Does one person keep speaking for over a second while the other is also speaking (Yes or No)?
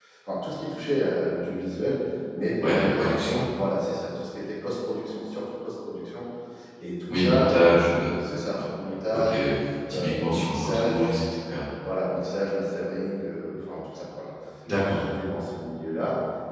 Yes